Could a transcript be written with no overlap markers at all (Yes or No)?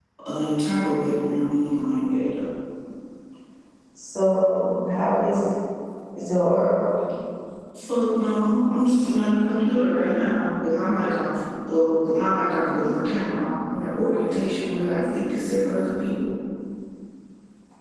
Yes